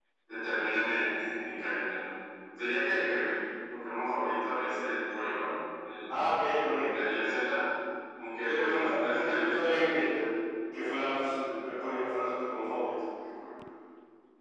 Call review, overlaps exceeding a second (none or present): present